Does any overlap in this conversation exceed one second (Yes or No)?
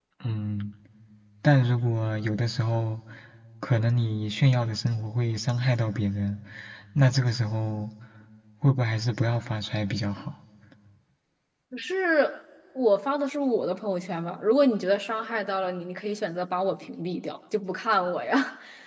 No